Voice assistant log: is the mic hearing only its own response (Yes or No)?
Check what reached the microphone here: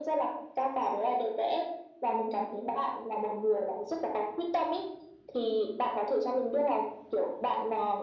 Yes